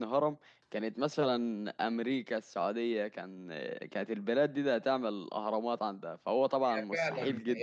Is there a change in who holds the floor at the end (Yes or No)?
Yes